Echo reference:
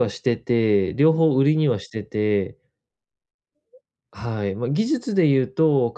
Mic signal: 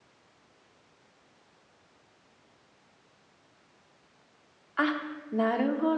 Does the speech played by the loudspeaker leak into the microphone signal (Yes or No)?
No